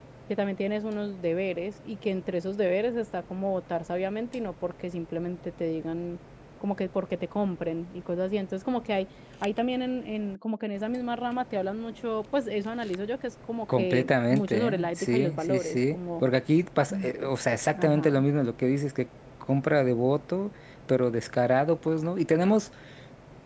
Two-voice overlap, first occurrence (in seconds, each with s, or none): 13.7 s